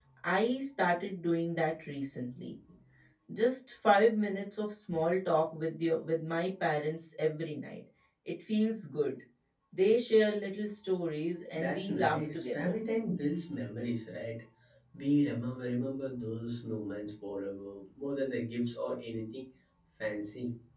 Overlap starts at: 11.5 s

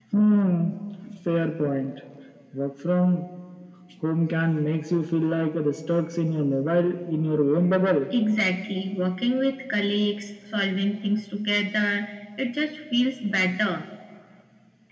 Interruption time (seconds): none

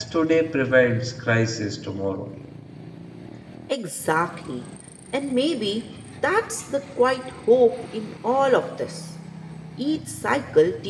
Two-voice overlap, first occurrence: none

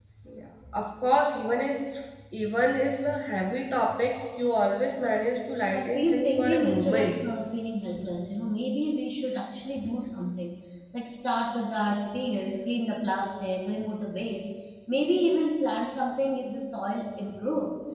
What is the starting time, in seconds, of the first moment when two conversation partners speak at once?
5.7 s

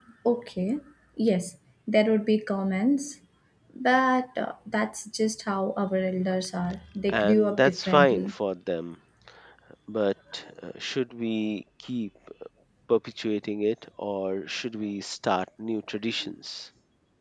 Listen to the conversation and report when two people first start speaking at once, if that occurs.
7.1 s

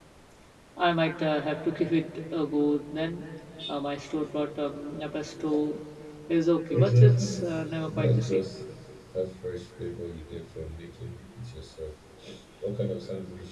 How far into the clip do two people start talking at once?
6.7 s

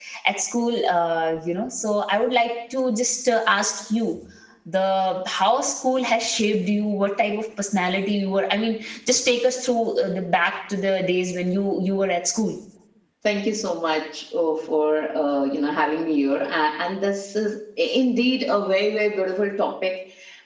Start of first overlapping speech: none

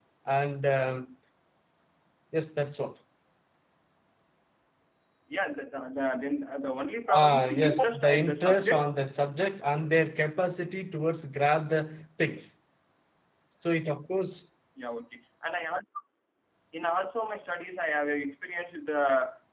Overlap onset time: 7.1 s

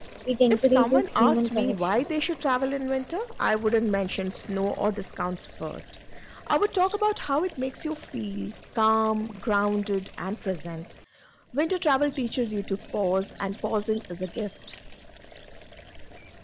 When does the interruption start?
0.5 s

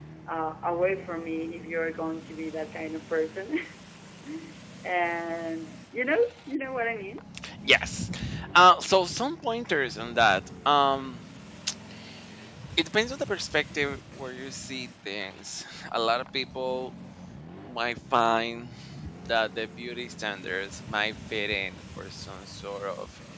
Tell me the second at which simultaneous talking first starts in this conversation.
none

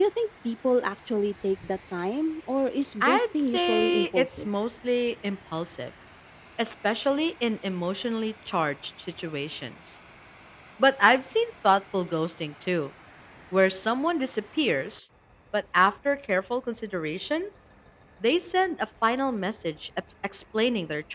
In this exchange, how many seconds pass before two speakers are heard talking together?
3.0 s

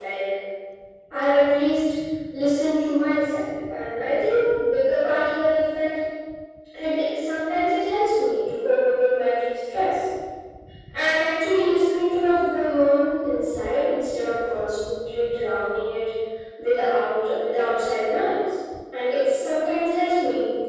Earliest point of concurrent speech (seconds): none

